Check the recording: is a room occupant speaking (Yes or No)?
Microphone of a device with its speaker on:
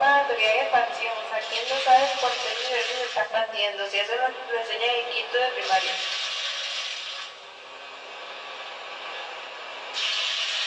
No